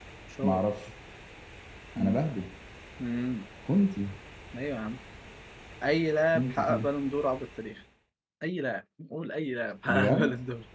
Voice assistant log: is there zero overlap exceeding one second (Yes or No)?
Yes